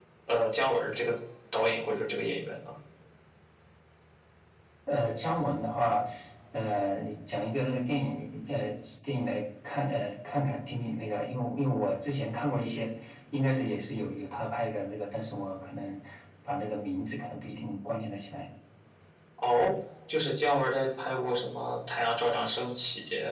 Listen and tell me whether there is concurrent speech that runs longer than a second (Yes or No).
No